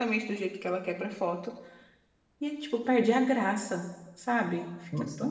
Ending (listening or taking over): taking over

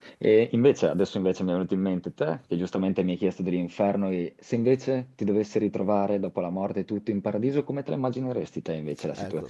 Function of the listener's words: taking over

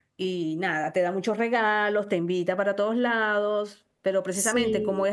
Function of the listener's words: listening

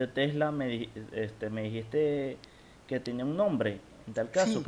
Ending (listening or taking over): listening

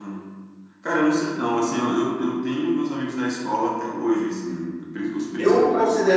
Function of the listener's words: taking over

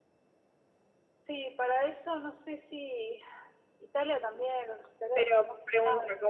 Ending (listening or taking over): taking over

